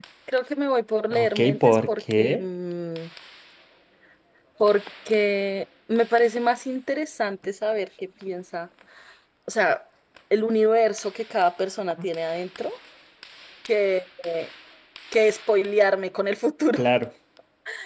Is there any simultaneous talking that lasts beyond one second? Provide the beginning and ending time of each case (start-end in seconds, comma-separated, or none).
1.1-2.4